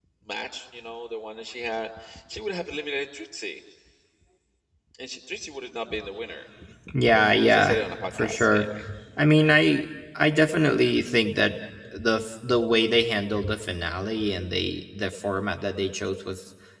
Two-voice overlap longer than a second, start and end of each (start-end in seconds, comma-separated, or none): 7.5-8.7